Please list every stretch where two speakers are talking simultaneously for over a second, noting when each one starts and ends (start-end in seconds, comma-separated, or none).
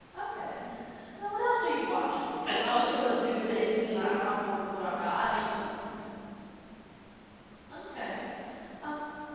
2.4-4.3